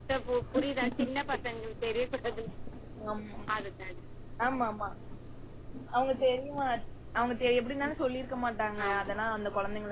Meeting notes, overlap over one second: none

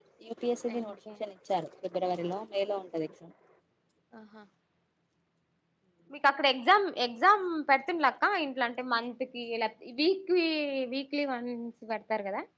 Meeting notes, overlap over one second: none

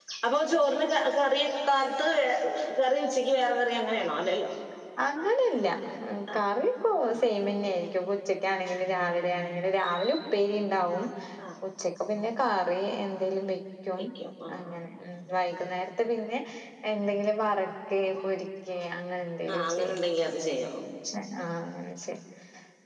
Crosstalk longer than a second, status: none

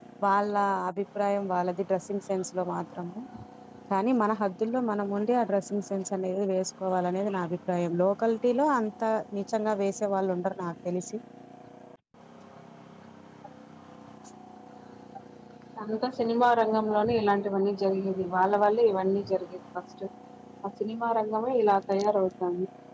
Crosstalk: none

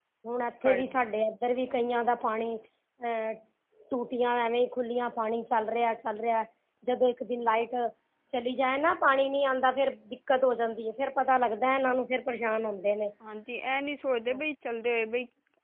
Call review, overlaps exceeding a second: none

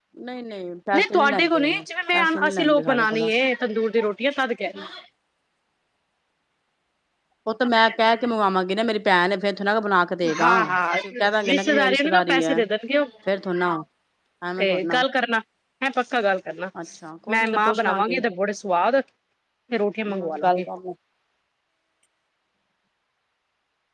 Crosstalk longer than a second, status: present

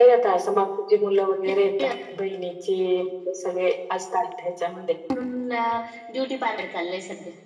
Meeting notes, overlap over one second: none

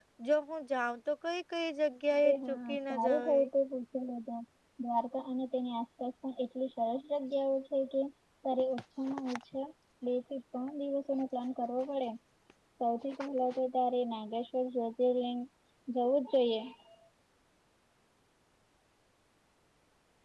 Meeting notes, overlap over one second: present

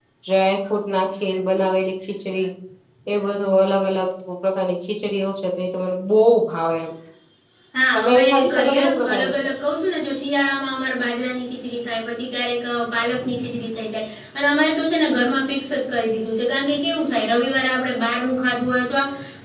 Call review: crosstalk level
present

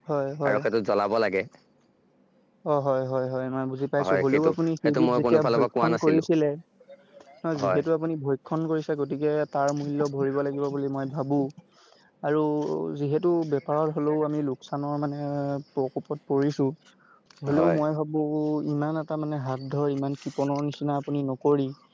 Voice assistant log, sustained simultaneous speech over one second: present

